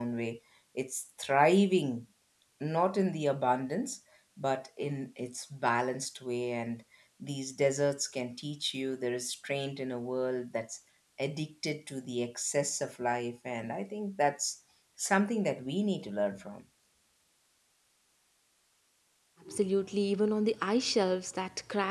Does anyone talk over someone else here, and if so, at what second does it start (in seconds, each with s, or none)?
none